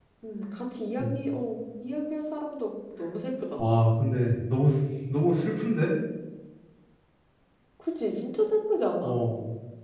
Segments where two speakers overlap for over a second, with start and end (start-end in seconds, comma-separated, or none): none